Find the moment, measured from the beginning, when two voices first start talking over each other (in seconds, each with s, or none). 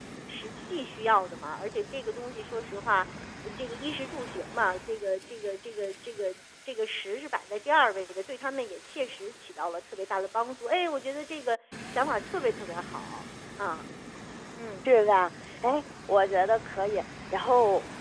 none